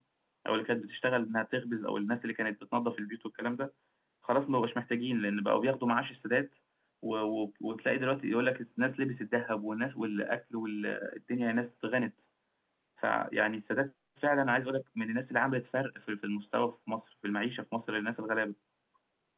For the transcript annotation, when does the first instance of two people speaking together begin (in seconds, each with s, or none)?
none